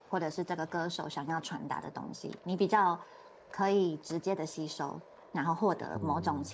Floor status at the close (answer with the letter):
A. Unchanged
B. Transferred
A